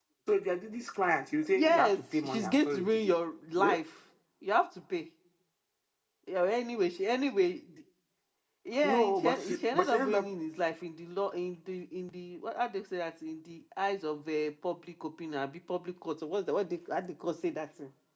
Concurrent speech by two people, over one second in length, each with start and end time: 1.5-3.1, 8.8-10.2

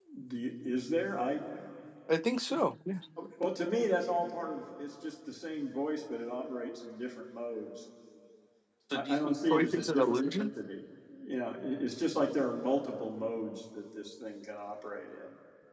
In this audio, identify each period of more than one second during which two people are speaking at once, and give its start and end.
8.9-10.5

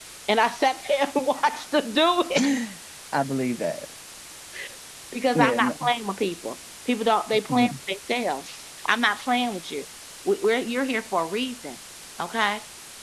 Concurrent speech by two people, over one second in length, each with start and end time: none

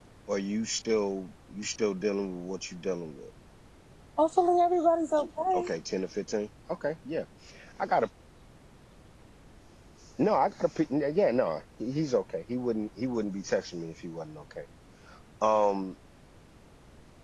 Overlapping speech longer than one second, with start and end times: none

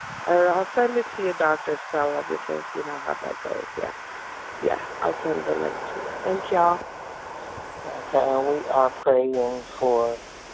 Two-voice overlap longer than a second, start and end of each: none

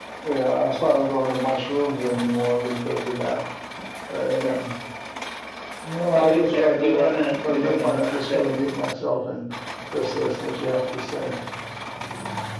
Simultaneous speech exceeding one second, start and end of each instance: 6.2-8.4

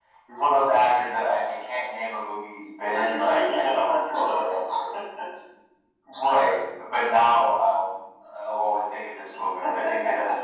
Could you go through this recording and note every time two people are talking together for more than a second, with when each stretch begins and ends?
2.8-4.6

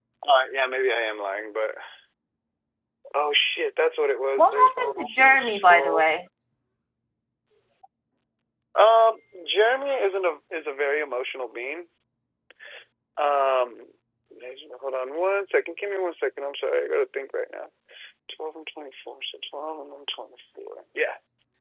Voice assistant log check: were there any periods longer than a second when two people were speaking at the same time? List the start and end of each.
4.4-6.0

